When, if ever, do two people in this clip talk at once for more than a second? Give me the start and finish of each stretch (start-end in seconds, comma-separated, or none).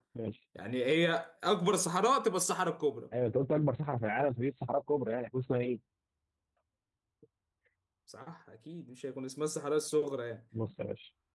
none